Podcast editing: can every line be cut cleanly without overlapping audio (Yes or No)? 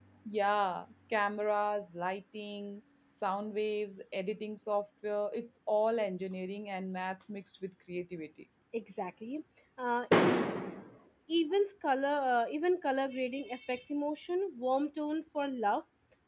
Yes